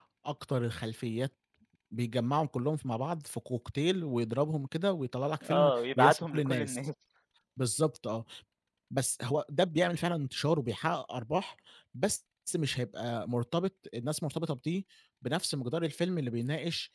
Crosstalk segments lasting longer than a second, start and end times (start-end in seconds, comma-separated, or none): 5.4-6.8